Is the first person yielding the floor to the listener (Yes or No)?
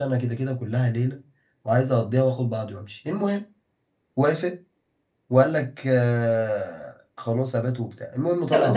Yes